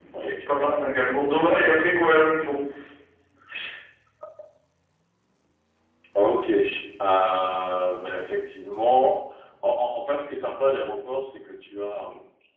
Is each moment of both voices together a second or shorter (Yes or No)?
Yes